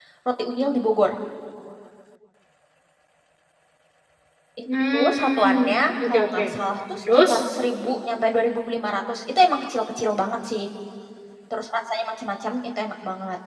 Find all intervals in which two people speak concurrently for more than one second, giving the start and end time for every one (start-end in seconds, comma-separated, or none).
4.9-6.4